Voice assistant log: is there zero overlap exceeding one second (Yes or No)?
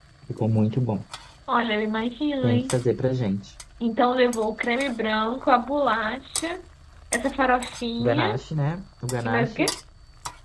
Yes